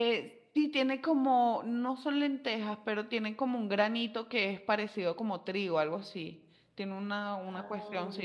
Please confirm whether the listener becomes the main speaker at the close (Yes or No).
No